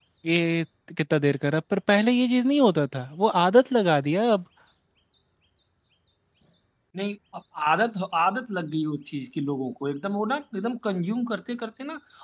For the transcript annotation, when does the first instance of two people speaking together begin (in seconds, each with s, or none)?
none